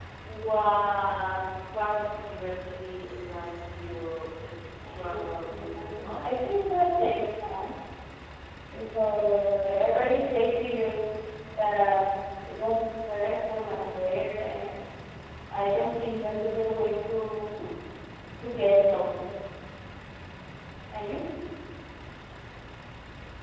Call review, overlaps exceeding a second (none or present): present